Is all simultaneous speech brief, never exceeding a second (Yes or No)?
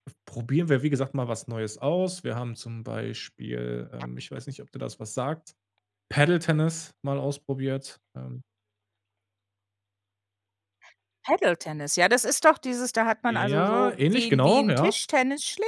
No